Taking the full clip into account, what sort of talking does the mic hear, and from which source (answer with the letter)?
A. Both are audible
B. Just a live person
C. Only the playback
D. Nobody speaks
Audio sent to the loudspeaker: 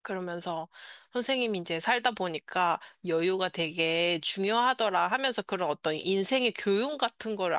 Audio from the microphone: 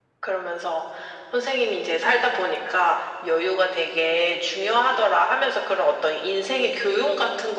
C